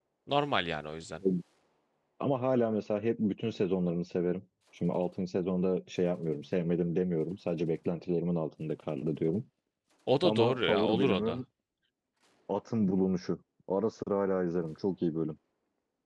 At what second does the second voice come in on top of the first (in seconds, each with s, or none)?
10.2 s